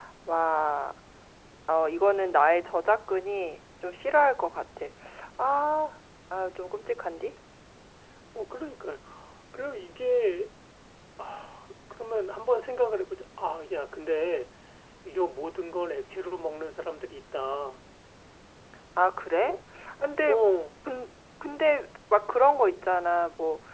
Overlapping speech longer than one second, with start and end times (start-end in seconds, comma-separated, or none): none